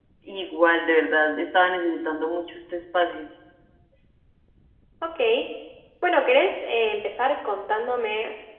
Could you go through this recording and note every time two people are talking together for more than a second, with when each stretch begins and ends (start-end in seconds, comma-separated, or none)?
none